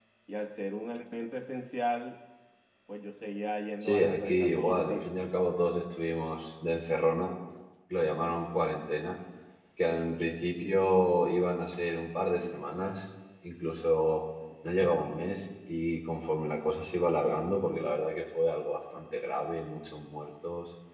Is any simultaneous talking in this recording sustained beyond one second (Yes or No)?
Yes